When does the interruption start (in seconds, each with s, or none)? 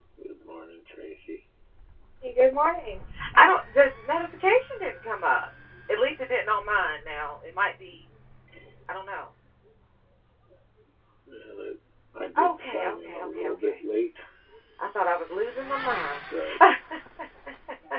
12.4 s